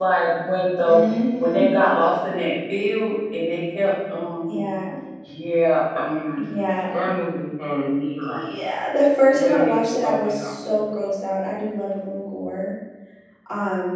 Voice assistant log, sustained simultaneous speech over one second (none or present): present